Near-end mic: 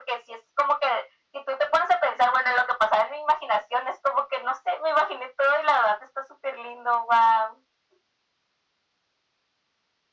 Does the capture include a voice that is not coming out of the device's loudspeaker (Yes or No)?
No